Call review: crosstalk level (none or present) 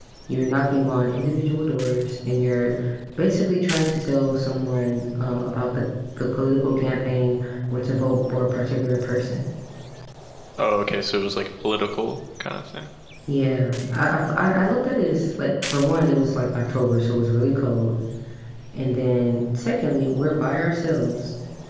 none